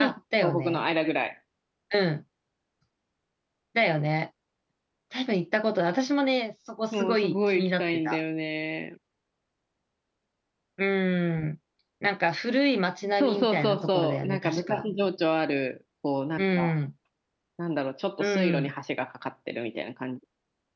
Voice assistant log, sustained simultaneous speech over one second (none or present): present